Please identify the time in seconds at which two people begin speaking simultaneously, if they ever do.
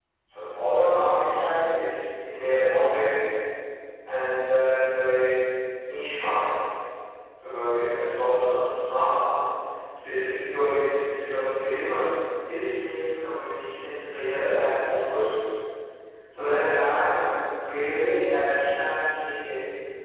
none

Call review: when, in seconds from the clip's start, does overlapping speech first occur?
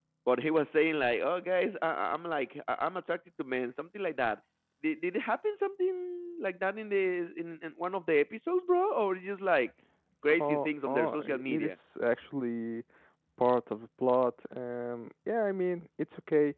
10.4 s

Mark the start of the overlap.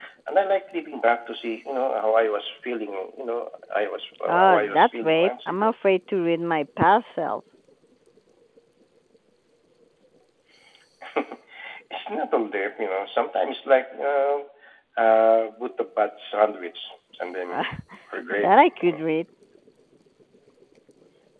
4.3 s

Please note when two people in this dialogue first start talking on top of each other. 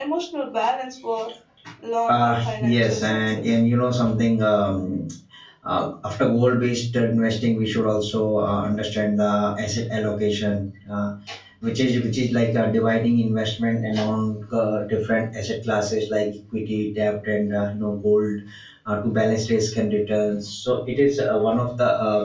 2.1 s

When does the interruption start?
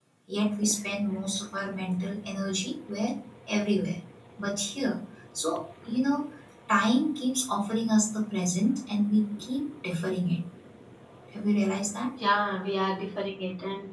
none

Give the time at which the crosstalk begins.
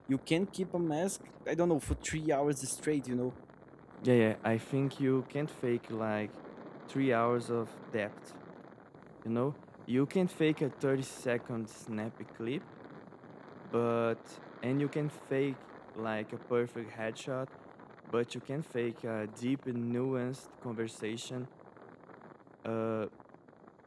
none

